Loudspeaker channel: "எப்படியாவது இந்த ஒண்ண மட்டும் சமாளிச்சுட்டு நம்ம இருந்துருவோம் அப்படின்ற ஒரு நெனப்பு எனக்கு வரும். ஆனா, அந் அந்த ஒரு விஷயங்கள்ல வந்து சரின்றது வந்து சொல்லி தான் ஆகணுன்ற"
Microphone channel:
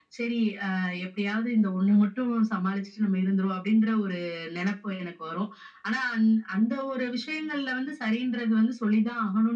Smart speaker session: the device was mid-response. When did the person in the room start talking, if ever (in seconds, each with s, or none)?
none